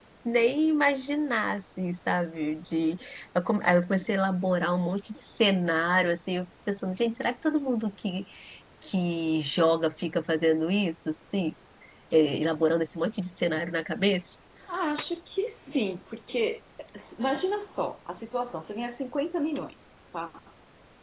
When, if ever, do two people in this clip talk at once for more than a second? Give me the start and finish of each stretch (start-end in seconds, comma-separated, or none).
none